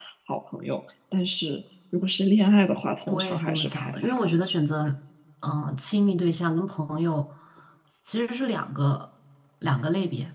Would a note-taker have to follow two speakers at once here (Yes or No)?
Yes